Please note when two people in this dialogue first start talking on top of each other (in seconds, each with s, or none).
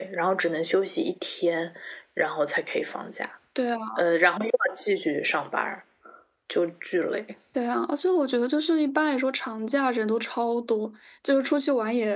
none